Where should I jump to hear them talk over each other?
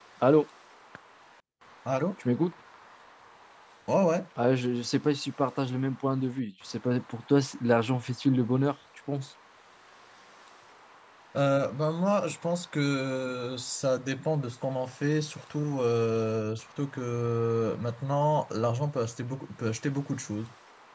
none

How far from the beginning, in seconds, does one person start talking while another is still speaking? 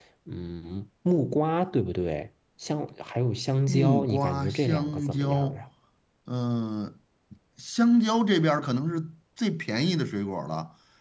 4 s

